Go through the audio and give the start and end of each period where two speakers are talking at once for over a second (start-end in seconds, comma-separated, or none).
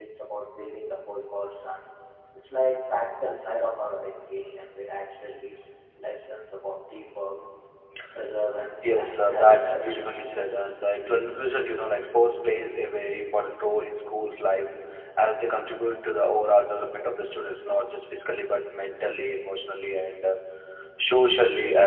8.8-10.1